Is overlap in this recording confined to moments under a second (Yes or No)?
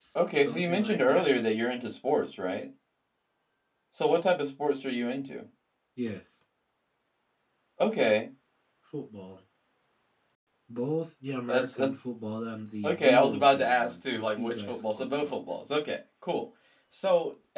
No